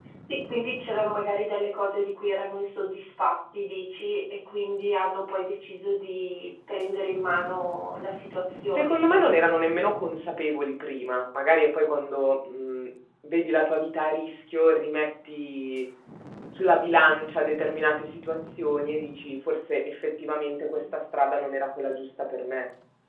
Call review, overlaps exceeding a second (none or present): none